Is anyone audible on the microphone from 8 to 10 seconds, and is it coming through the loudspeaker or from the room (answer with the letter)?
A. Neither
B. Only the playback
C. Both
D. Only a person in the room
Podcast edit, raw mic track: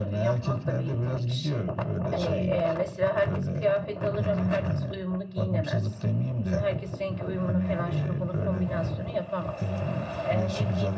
B